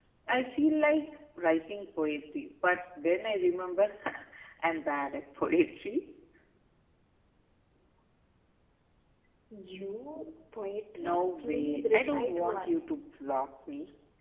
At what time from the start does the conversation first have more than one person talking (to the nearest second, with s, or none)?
11 s